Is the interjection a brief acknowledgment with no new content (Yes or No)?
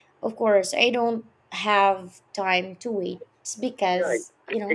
No